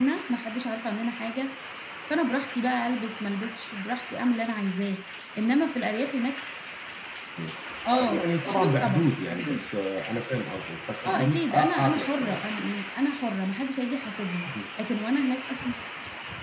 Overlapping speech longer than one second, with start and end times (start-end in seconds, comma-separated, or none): 7.9-9.6, 11.0-12.4